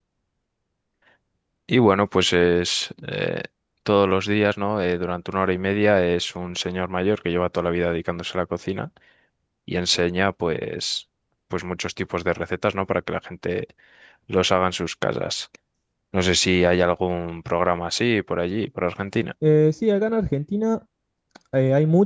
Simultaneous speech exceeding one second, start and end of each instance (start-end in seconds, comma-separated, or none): none